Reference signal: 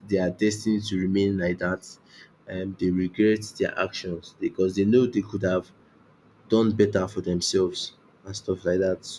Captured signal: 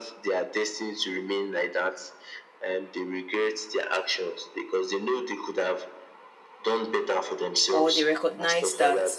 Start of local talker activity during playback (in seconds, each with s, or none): 7.7 s